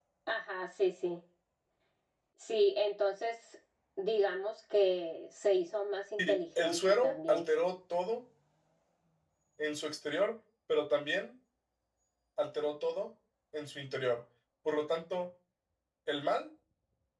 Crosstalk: present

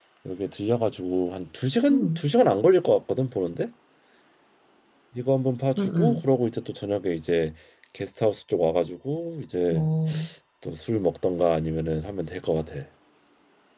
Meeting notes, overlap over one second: none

